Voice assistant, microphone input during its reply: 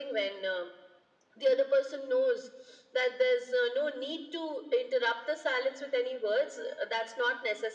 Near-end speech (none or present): none